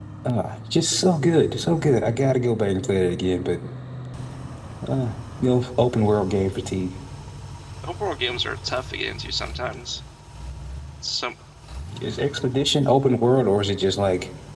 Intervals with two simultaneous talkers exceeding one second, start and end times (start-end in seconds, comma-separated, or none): none